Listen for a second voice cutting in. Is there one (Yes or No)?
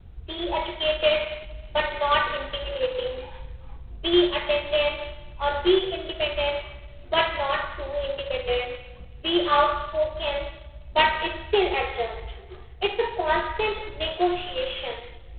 No